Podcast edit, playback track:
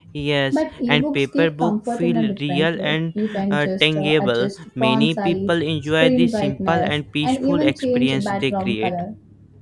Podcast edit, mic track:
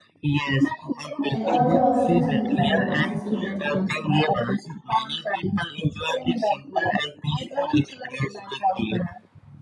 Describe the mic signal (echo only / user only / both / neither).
both